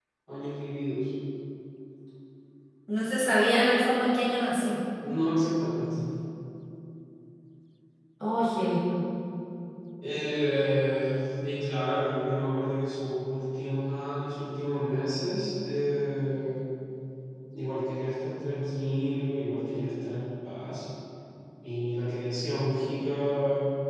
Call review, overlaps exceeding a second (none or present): none